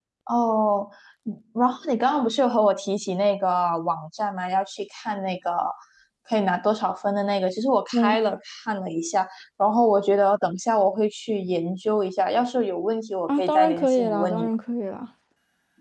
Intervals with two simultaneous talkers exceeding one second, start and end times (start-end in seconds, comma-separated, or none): 13.3-14.5